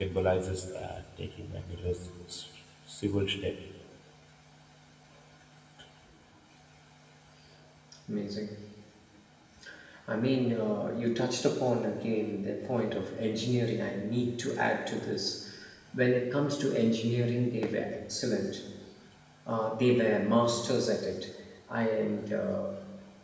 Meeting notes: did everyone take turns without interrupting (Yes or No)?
Yes